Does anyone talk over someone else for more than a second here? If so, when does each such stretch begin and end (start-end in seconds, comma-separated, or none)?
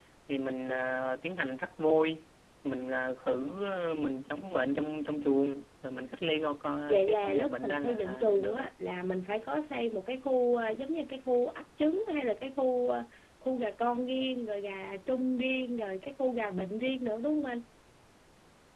6.9-8.7